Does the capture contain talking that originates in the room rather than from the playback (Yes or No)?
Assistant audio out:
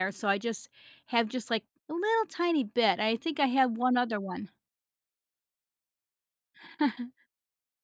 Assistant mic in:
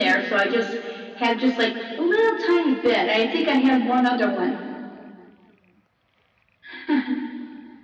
No